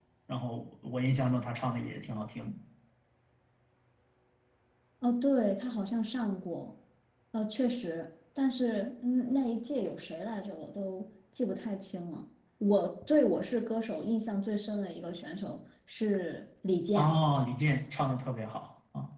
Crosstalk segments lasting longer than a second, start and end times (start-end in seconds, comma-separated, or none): none